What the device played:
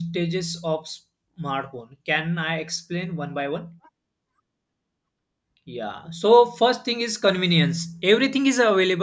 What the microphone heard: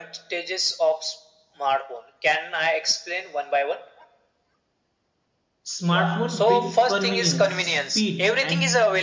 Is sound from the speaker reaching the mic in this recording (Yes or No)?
Yes